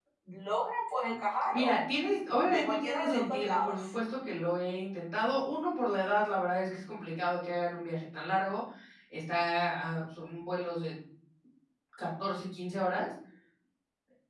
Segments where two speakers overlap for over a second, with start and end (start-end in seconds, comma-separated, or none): 2.4-3.8